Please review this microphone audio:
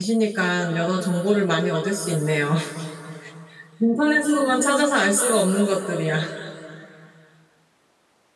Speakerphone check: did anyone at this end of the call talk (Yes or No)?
Yes